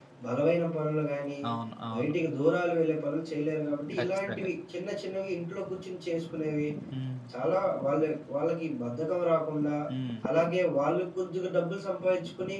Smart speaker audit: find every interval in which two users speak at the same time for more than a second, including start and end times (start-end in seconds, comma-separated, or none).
none